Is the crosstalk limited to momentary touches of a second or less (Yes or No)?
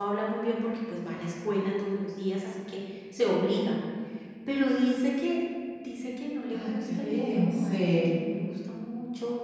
No